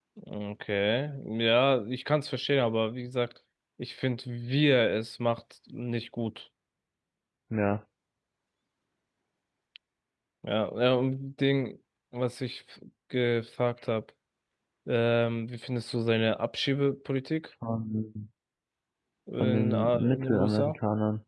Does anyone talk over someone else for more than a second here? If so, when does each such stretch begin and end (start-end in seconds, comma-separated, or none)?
19.4-20.7